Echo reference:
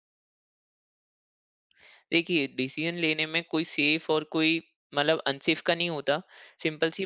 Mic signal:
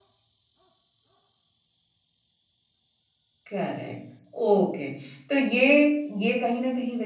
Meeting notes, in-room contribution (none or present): present